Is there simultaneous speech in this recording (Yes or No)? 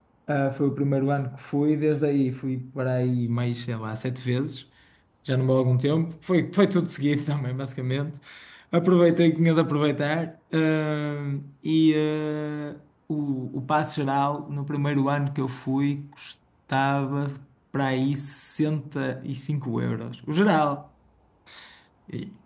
No